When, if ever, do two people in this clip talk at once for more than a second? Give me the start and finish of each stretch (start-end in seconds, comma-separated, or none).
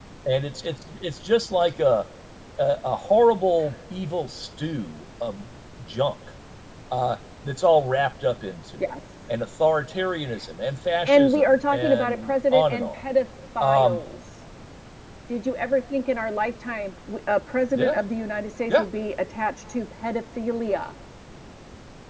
11.1-13.0